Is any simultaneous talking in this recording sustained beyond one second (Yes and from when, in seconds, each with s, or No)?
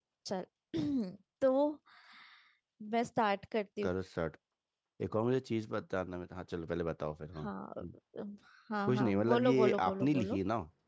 Yes, from 8.9 s